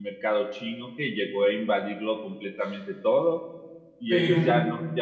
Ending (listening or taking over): listening